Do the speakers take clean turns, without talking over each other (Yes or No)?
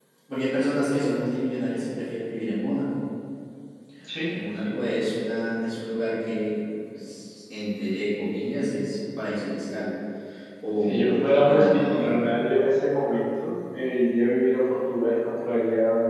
No